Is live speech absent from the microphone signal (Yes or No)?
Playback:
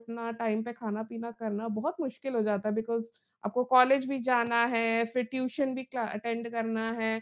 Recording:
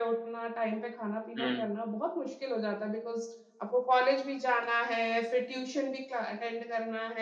No